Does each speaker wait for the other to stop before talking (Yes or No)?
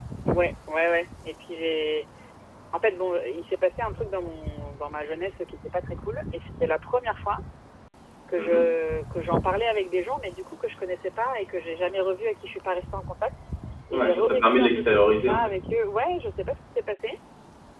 No